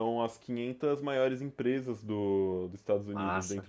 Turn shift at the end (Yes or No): No